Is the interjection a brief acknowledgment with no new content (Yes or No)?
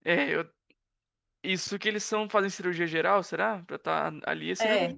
No